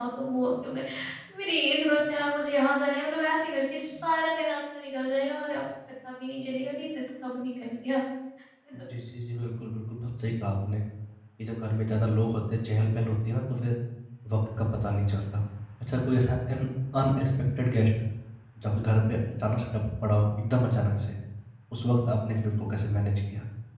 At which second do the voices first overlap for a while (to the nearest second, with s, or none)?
none